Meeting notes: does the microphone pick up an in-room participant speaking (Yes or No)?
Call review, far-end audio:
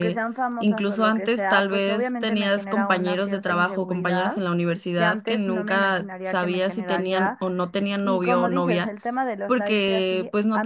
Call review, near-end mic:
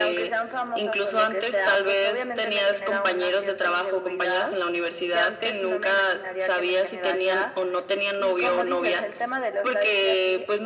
No